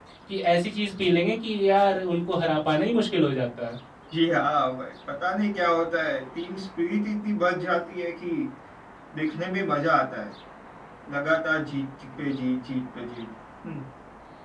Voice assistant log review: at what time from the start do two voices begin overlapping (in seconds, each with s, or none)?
none